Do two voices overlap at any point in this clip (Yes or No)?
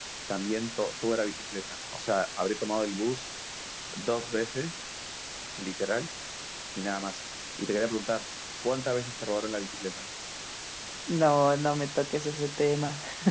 No